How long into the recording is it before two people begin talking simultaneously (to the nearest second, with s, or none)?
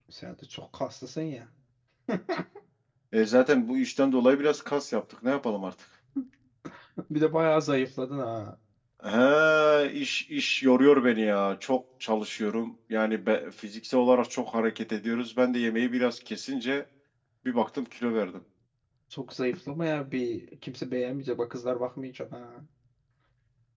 none